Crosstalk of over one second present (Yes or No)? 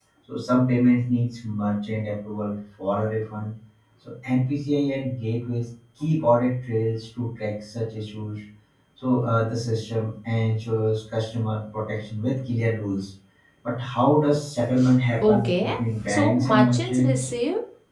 Yes